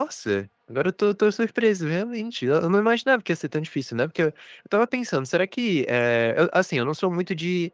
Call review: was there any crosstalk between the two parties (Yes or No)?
No